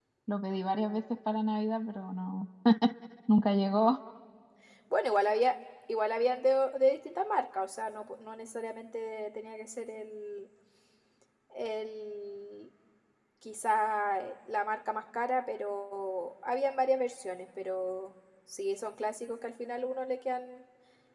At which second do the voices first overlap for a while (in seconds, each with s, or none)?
none